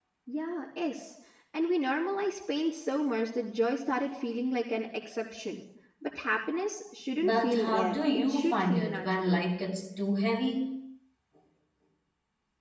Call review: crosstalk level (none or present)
present